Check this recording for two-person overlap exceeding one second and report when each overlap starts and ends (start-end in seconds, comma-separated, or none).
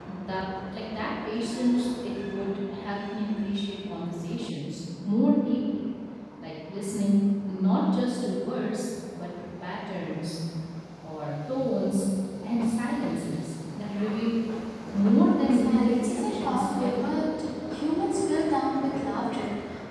15.5-17.3